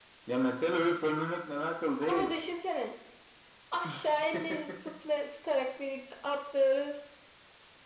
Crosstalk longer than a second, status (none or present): none